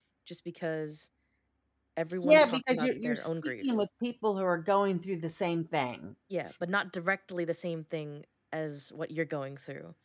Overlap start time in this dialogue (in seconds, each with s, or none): 2.2 s